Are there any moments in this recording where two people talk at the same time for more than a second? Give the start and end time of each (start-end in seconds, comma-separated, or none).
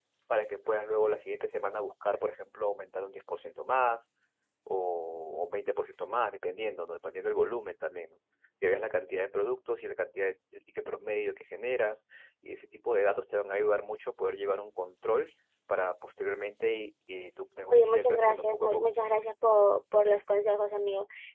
17.7-18.9